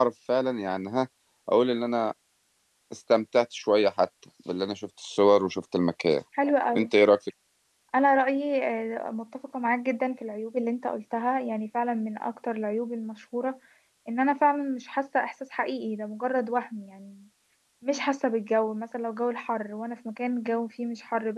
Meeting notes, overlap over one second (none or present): none